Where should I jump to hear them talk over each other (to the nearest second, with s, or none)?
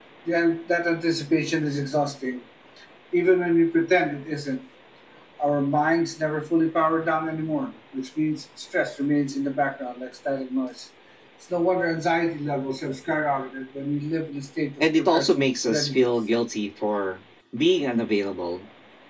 15 s